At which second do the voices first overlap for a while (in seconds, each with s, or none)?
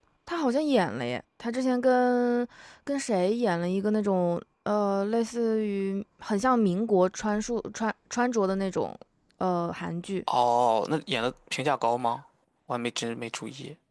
none